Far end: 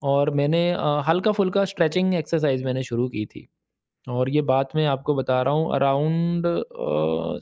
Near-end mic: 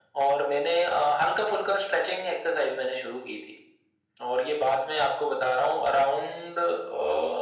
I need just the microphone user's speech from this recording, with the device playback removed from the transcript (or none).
none